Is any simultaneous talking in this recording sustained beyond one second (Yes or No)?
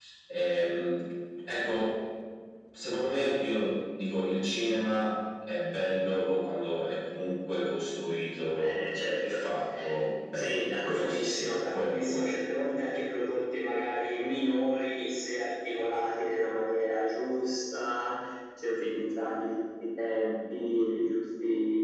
Yes